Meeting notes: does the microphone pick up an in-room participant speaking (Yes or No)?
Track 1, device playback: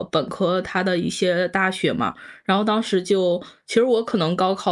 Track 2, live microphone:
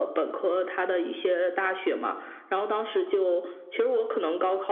No